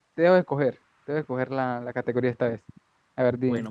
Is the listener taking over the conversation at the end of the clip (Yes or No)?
Yes